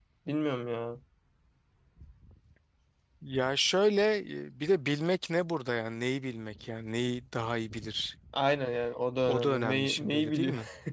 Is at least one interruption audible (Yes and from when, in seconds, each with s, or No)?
Yes, from 9.3 s